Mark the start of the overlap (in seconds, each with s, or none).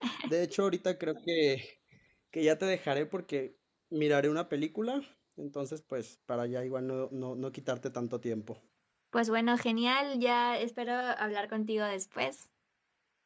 none